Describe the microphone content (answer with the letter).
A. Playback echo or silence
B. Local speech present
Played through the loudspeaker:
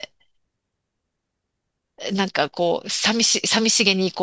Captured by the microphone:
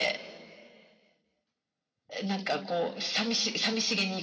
A